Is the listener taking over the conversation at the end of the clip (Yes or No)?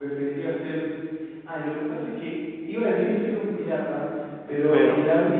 No